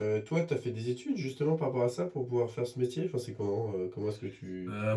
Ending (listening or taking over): taking over